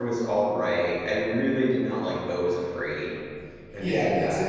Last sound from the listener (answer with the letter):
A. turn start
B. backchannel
A